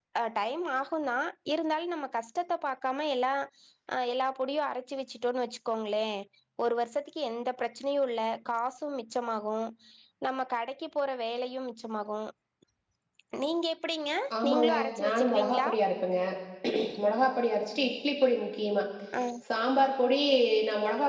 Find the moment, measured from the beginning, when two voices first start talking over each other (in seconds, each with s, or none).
14.3 s